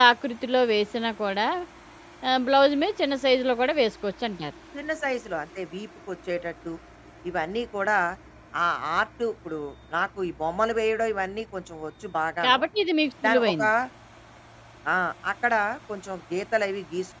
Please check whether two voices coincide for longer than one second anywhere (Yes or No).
No